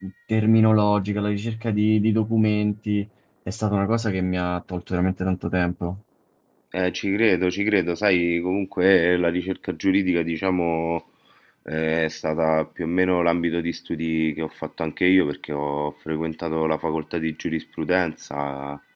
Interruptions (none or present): none